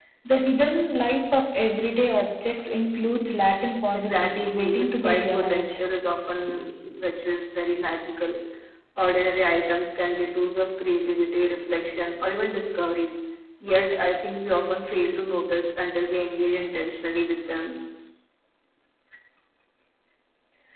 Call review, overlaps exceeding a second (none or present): present